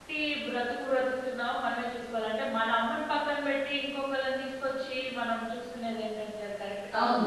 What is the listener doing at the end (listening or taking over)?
taking over